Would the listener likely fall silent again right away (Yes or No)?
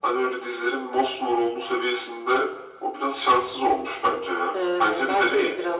No